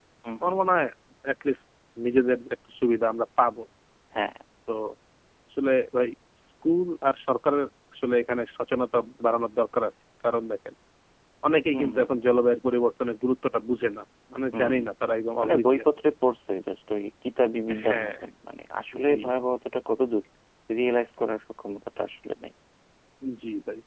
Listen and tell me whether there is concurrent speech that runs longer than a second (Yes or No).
No